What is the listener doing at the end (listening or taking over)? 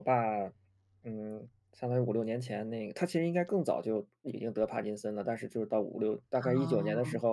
listening